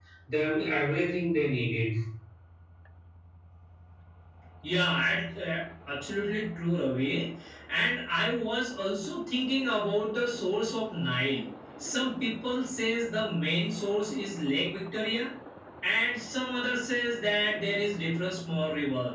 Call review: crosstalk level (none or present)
none